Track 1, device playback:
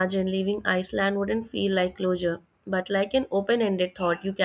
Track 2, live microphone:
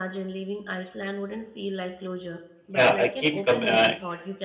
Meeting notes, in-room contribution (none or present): present